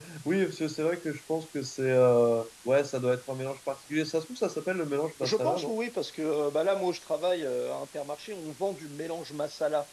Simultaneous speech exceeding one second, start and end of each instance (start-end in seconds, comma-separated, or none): none